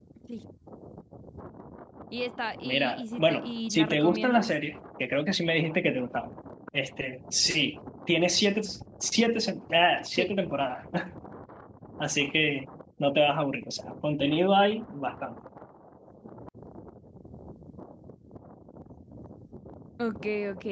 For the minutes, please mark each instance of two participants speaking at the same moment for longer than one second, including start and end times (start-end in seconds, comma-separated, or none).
2.6-4.4